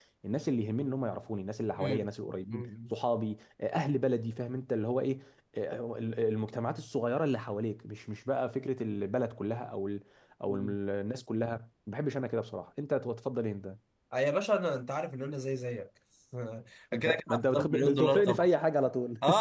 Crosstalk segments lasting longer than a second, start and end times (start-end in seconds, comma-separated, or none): 16.9-18.5